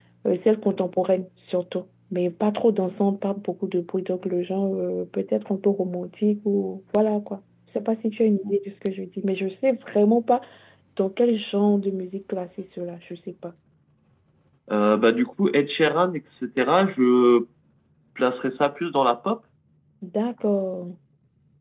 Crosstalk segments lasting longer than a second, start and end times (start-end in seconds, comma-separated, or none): none